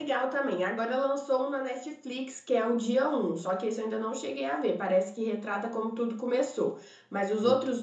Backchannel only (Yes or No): Yes